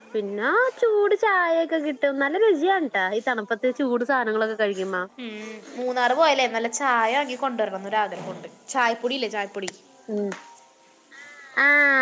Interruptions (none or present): none